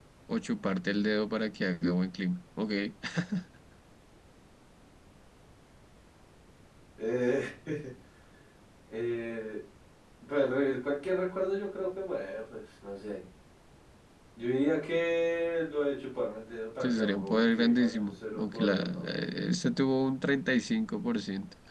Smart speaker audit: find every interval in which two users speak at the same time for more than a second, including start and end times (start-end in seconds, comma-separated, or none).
16.8-19.1